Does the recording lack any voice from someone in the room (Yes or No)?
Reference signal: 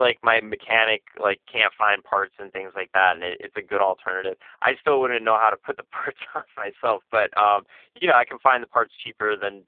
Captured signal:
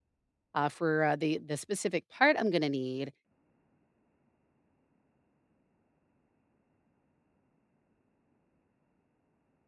No